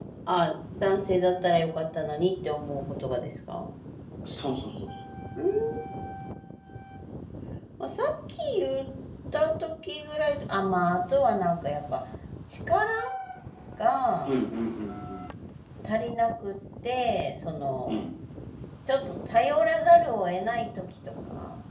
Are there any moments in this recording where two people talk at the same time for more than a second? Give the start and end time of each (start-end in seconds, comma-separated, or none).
none